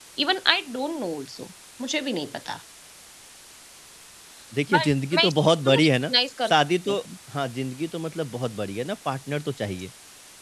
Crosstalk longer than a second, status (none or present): present